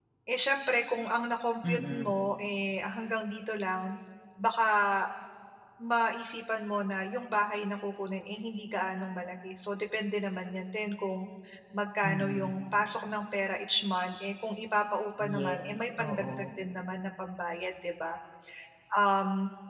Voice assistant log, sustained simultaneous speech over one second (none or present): none